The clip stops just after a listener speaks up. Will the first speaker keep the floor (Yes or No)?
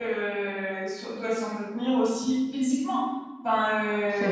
Yes